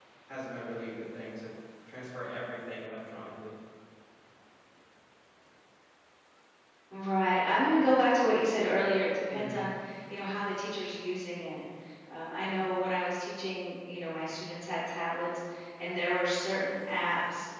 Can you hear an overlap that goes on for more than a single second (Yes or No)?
No